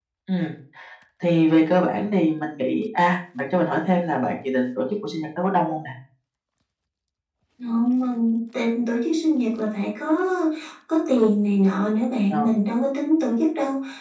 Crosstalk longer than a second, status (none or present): none